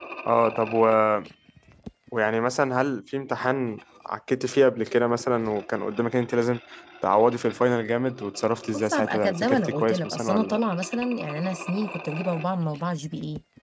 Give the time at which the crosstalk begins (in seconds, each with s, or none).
8.7 s